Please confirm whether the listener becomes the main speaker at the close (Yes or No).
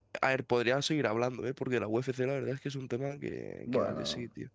Yes